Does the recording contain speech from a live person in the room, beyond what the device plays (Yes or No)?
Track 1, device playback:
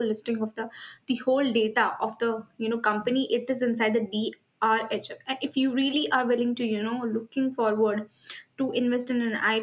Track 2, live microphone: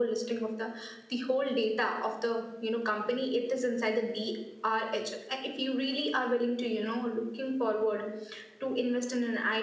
No